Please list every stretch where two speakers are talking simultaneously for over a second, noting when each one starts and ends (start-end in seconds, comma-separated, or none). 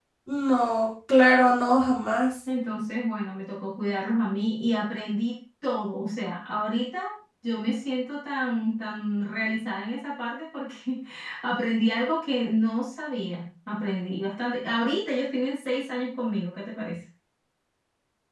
none